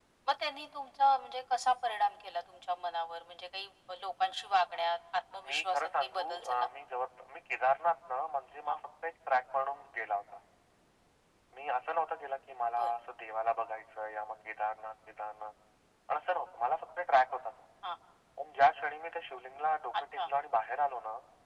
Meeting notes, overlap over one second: present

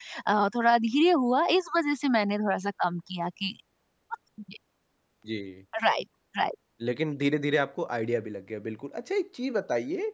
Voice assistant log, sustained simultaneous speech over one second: none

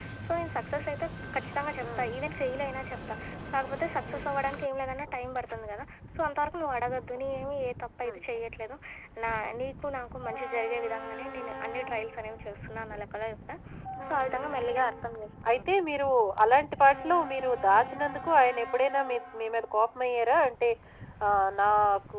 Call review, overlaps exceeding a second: none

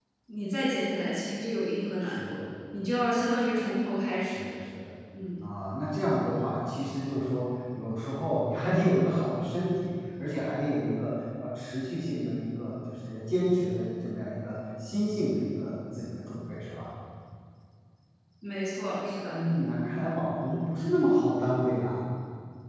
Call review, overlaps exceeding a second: none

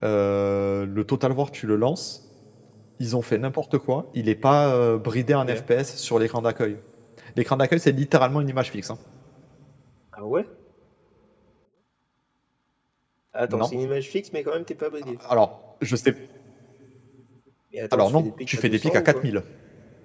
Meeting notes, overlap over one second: present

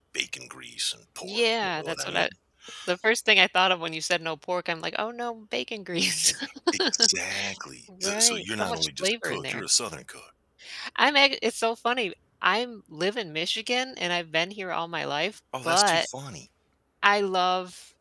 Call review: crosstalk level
present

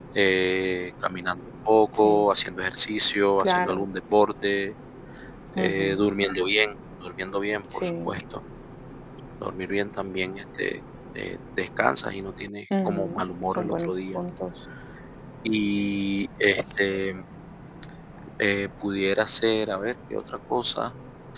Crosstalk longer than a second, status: present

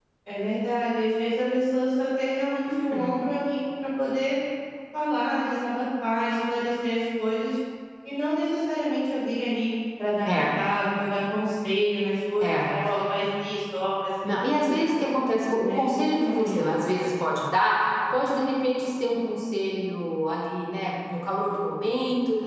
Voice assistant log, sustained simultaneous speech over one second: present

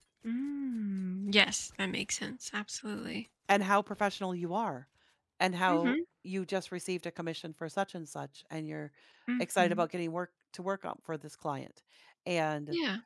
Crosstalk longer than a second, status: none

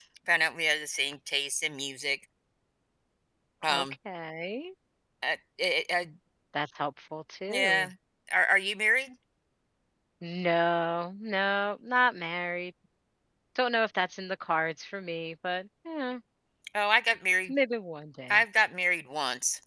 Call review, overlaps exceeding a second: none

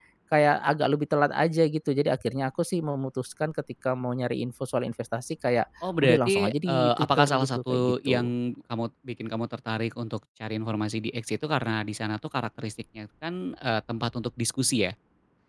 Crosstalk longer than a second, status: present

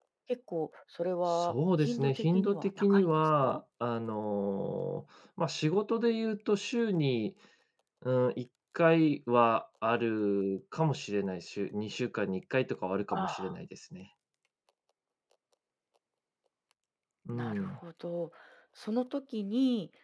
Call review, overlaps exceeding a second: present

